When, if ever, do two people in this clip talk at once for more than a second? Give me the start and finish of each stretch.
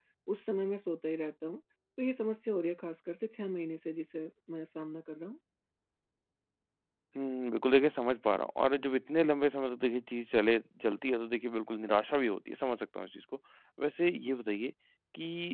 none

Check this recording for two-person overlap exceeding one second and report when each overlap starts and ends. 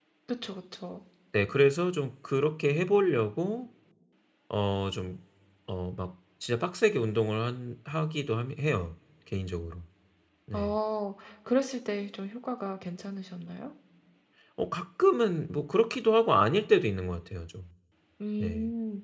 none

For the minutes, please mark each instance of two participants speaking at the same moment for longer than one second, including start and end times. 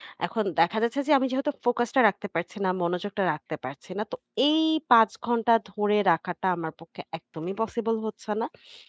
none

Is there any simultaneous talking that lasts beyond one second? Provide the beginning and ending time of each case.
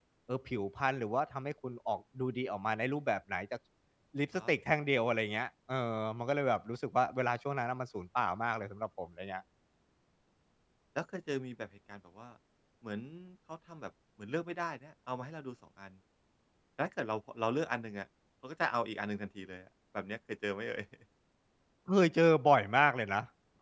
none

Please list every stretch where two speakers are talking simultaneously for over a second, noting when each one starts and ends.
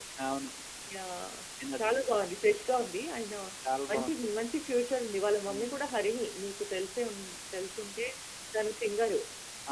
none

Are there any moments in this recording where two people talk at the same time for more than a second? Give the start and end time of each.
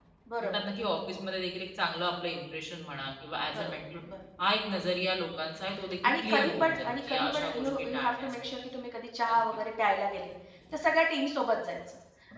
6.0-8.5

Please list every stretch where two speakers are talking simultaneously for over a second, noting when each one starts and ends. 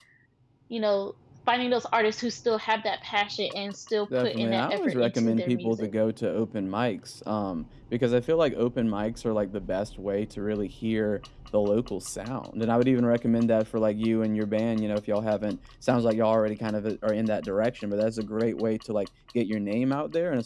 4.2-5.9

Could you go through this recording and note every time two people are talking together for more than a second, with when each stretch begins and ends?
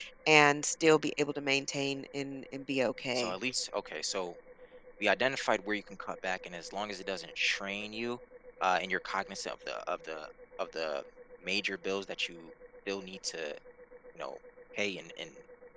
none

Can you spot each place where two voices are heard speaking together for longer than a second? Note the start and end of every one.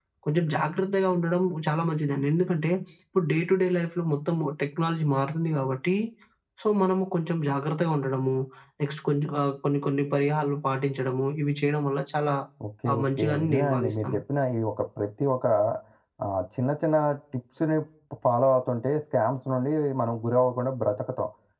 12.9-14.2

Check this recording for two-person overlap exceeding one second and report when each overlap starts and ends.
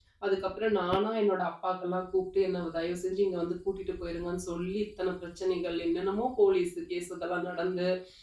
none

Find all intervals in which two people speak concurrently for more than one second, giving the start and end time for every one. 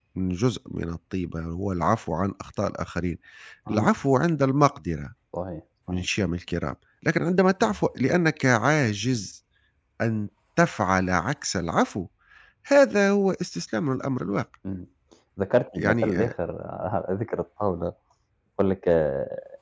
none

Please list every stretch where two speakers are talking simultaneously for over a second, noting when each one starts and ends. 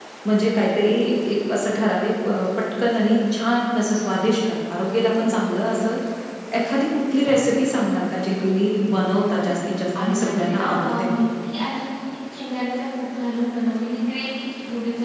9.5-11.2

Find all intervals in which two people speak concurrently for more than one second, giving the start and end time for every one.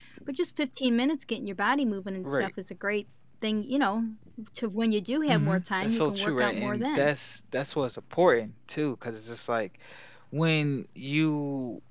5.3-7.1

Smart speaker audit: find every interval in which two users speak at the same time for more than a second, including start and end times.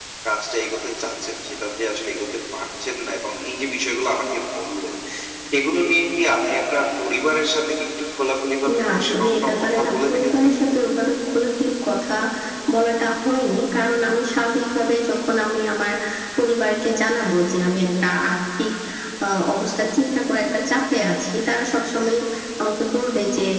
8.8-10.5

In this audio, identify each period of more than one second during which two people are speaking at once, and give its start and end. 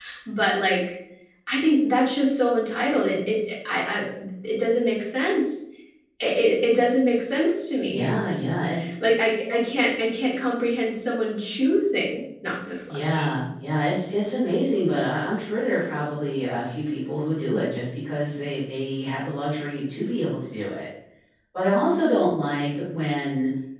none

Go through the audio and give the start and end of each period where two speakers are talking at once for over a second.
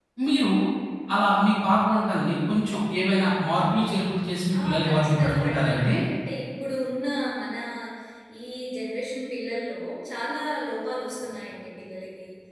4.6-5.9

